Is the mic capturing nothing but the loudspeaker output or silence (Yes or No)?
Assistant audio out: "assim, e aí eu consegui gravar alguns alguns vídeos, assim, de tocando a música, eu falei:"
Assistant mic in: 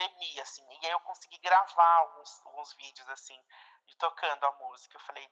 Yes